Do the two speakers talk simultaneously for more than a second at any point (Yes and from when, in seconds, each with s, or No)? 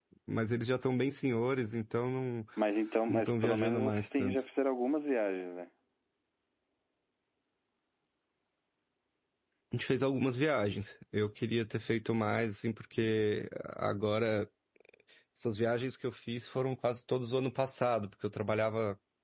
Yes, from 3.1 s